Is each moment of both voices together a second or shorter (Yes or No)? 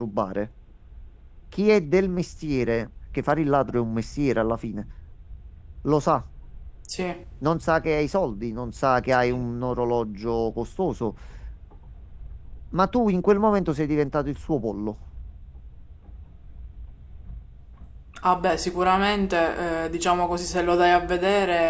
Yes